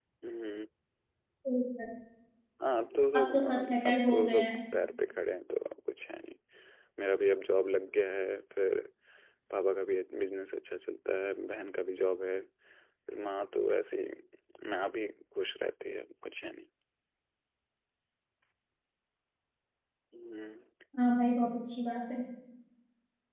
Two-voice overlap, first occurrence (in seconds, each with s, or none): 3.1 s